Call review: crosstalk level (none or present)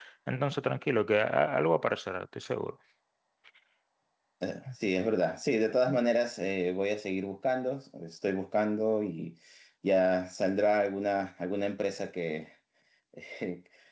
none